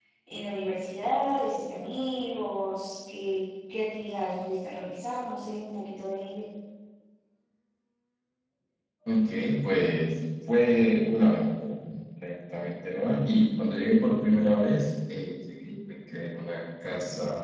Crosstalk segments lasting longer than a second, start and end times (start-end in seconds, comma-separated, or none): none